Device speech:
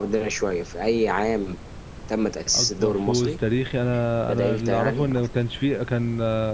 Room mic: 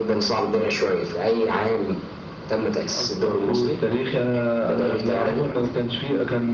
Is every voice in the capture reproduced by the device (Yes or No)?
Yes